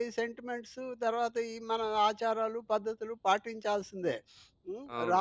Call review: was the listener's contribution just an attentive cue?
No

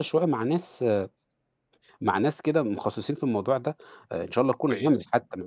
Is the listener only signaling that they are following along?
Yes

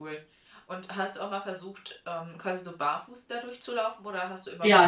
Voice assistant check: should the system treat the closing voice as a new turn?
Yes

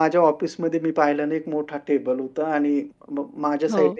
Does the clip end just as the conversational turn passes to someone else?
No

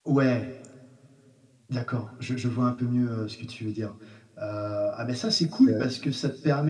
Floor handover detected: No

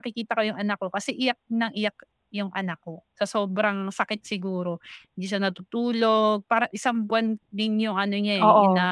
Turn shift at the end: No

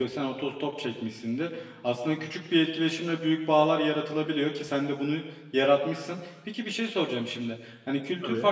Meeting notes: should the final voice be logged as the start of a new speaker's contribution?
No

